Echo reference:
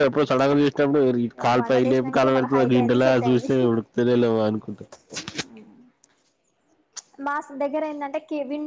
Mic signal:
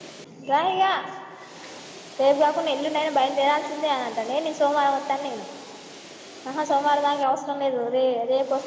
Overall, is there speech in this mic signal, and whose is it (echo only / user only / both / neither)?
user only